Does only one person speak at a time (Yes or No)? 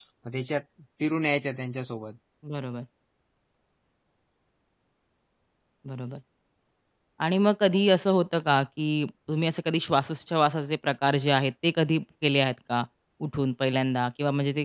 Yes